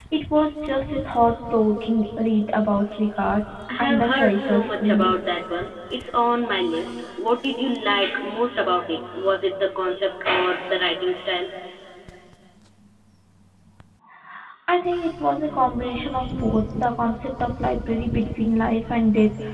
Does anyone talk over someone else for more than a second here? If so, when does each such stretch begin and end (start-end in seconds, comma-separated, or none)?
3.8-5.1